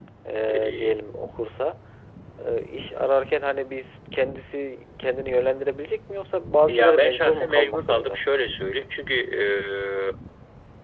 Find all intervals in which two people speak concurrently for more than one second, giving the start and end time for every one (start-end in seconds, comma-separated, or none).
6.7-8.2